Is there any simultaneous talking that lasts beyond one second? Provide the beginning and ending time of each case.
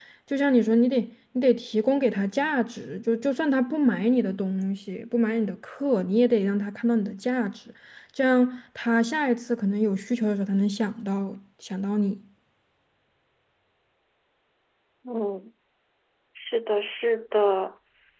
none

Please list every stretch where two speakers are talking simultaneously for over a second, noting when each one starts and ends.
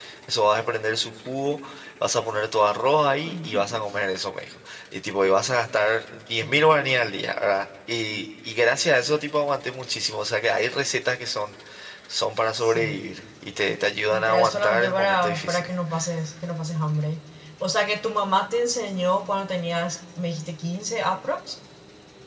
14.1-15.7

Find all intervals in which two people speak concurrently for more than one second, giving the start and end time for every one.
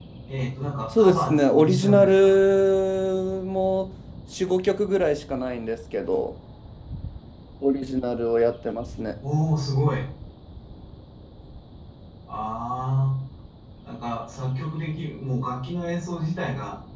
1.0-2.3

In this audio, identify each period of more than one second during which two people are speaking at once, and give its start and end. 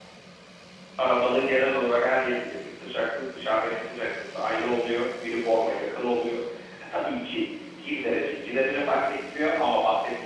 none

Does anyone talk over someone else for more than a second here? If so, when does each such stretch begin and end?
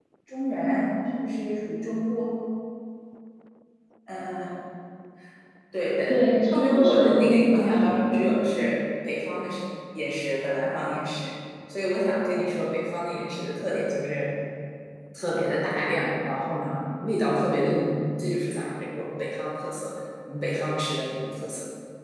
6.1-8.3

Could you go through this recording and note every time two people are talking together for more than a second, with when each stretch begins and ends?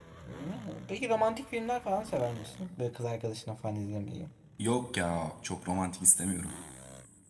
none

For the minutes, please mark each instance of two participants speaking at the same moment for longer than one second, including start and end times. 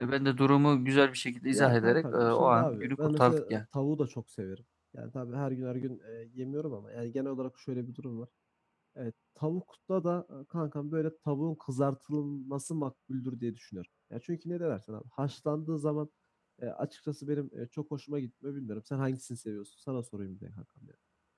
1.5-3.6

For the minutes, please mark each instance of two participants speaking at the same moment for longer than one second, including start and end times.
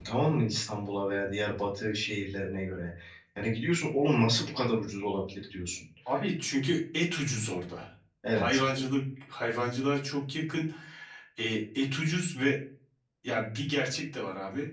none

